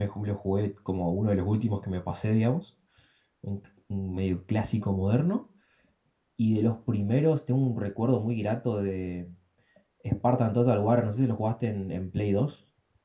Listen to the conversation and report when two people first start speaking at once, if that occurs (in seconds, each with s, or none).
none